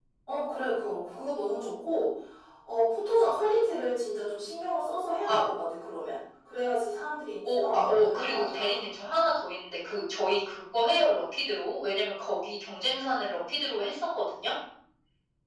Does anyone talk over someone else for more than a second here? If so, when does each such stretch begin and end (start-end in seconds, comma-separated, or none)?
7.6-8.8